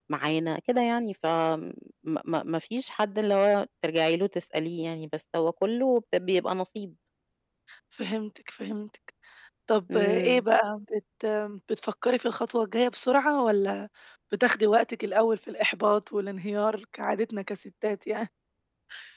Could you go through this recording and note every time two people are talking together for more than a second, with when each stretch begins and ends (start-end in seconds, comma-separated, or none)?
none